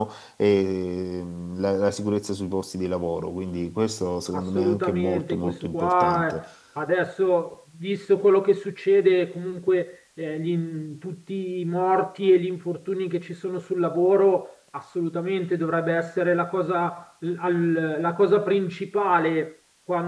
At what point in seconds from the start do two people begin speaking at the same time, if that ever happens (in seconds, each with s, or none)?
4.3 s